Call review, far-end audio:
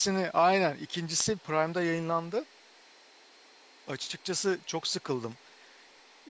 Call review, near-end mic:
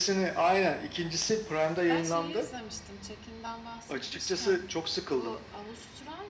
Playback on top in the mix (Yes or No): Yes